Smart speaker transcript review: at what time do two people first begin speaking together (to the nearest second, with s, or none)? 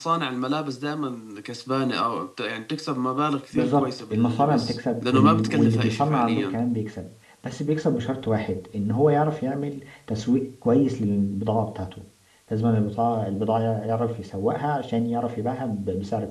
4 s